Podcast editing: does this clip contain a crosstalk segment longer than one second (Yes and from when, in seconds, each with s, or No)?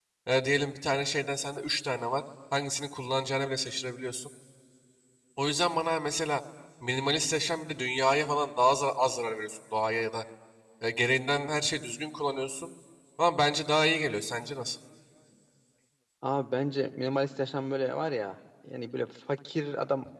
No